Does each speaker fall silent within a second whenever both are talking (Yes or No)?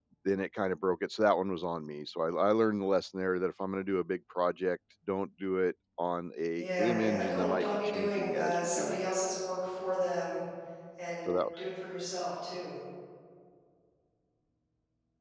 No